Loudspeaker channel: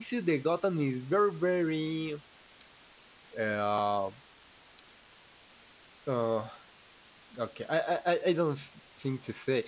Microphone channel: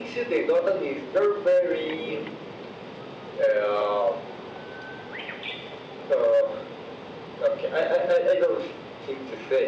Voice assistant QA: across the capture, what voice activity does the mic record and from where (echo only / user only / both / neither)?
echo only